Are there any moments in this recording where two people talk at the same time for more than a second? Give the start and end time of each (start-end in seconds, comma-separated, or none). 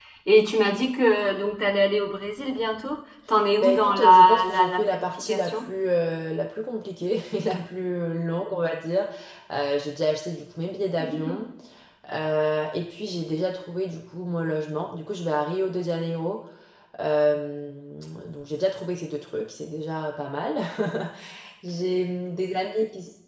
3.6-5.7